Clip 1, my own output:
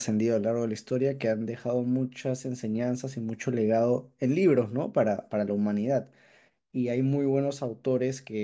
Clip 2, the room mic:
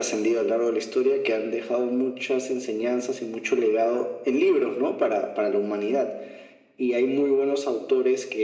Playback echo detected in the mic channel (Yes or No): Yes